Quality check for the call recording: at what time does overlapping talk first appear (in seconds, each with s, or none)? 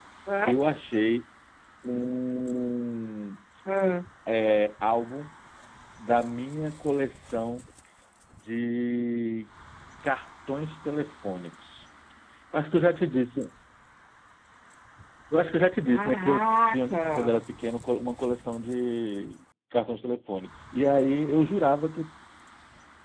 15.9 s